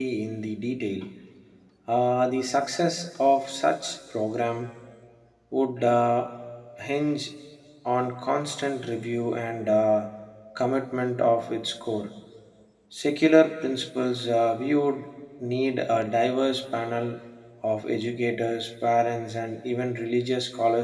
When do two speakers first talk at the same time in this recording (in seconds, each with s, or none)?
none